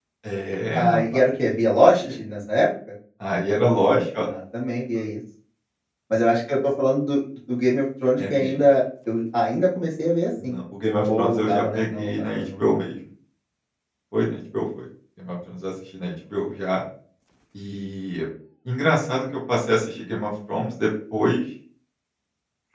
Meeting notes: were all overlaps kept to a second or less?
No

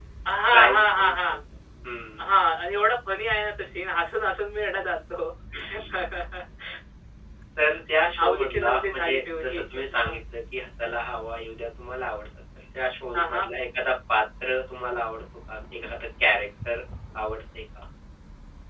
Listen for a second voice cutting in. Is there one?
Yes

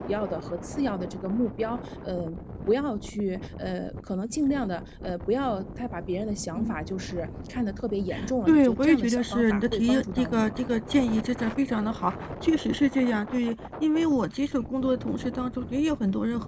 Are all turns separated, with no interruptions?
No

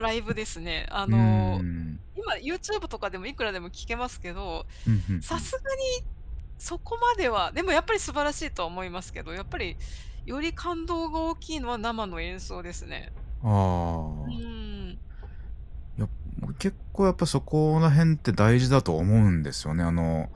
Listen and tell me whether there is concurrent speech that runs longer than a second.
No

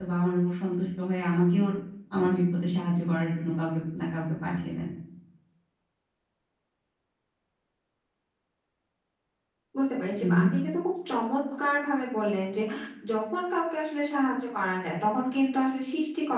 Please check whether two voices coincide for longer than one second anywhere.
No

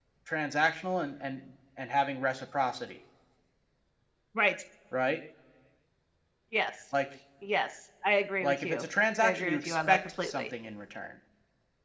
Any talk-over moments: Yes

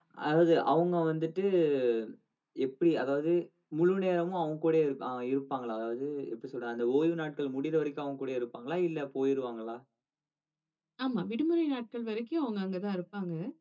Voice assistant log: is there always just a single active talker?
Yes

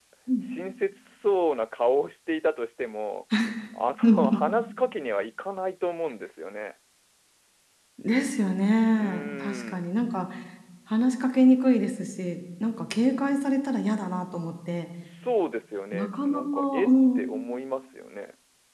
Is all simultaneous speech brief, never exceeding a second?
No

